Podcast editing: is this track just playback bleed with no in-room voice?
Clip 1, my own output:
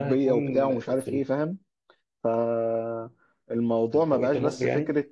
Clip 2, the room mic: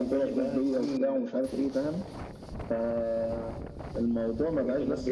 Yes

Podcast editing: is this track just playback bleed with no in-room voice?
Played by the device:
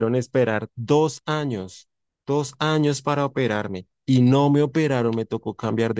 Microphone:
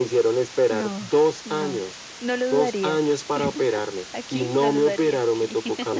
No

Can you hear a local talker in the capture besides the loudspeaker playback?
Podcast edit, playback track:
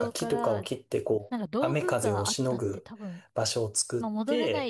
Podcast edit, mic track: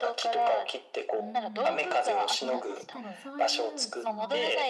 Yes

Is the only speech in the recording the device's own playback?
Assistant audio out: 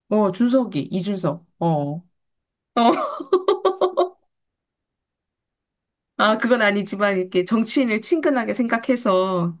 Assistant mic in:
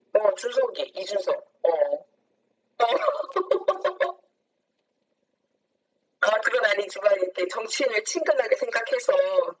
Yes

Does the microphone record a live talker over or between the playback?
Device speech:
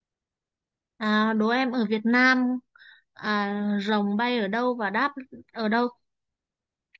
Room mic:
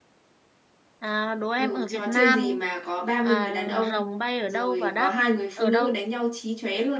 Yes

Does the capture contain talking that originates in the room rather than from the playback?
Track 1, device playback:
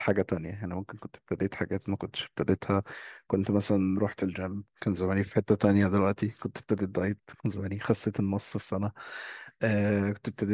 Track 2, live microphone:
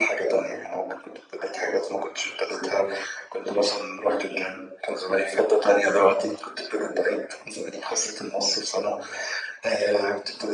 No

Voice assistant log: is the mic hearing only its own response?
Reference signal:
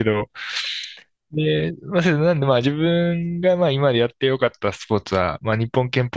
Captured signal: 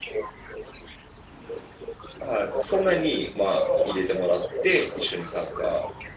No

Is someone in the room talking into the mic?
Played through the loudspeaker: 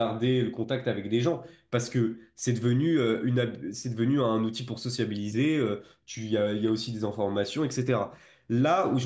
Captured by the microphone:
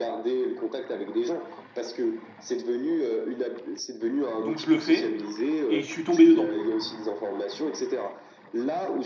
Yes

